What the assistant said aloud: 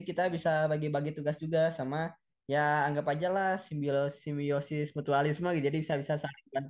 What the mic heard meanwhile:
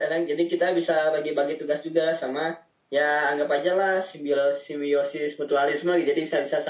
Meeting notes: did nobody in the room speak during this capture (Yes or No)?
Yes